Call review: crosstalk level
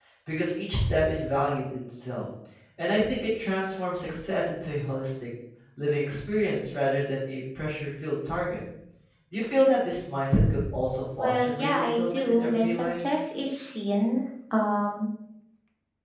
present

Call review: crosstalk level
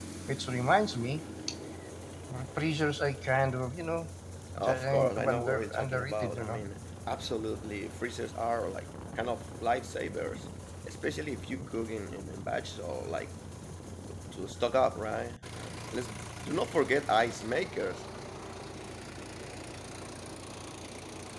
present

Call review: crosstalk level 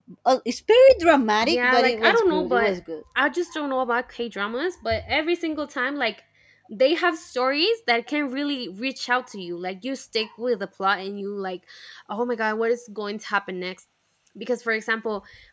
present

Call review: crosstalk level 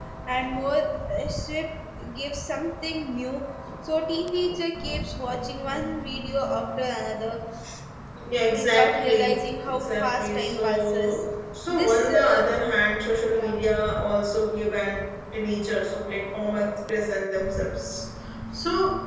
present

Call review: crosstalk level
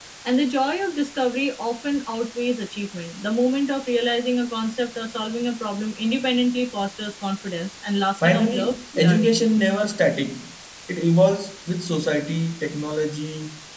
present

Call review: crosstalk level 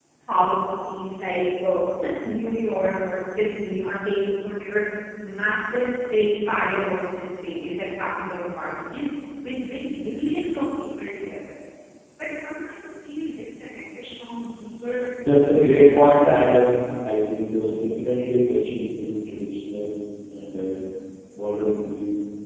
present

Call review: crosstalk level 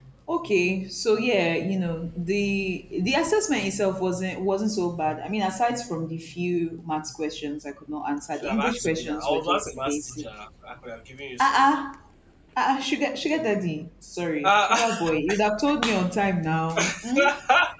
present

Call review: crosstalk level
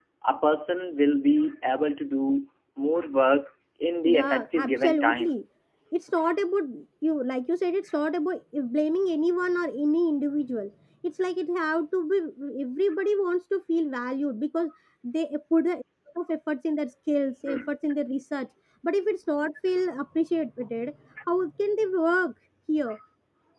present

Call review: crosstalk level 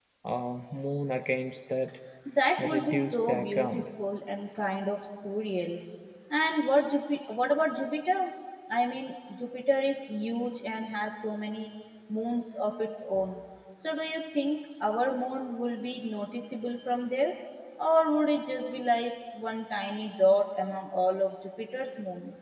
present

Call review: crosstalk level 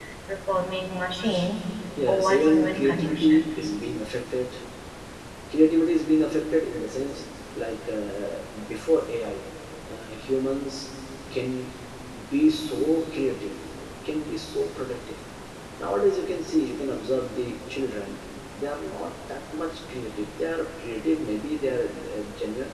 present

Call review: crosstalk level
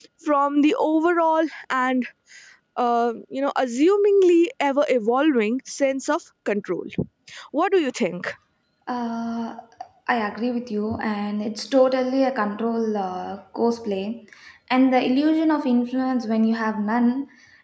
none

